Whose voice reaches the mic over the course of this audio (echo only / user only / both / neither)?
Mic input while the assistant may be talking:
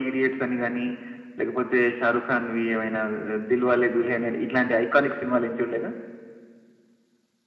echo only